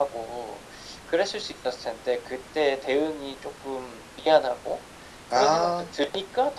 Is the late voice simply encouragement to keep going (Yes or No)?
Yes